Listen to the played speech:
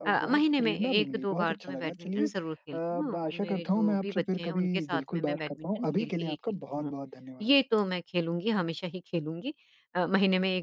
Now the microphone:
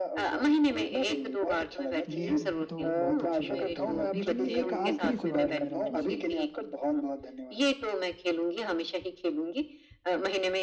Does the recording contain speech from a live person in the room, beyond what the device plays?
Yes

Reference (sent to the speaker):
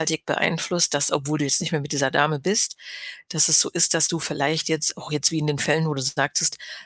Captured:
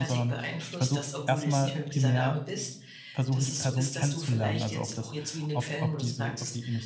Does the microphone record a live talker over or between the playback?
Yes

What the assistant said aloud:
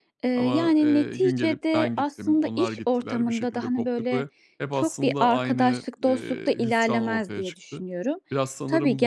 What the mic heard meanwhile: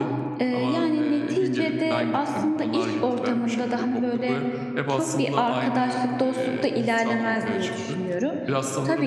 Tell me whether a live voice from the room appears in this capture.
No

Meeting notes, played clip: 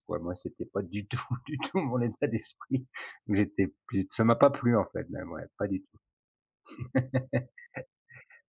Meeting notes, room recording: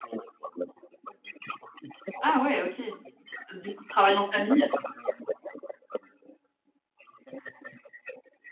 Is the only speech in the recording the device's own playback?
No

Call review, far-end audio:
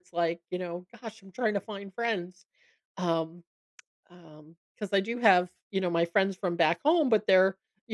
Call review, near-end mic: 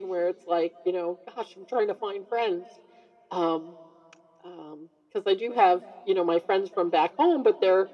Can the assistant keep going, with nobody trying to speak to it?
Yes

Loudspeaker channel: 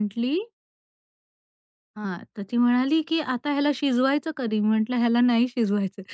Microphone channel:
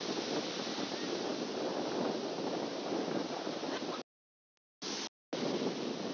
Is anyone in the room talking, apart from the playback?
No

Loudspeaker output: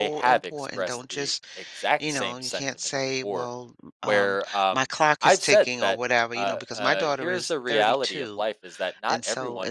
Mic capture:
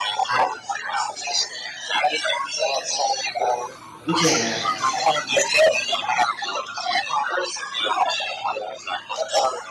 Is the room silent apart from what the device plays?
No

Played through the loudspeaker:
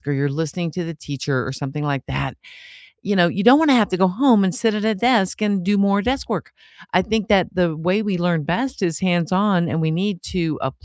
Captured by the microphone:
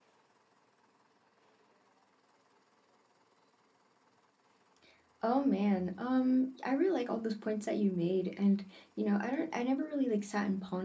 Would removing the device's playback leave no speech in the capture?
No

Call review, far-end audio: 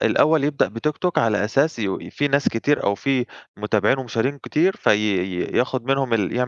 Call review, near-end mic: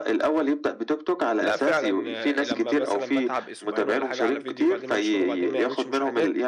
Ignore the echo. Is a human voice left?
Yes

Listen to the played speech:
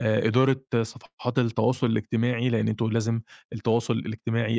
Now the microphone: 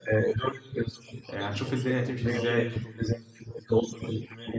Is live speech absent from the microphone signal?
No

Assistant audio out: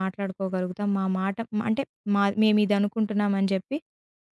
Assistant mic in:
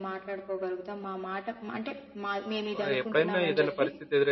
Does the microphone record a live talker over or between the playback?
Yes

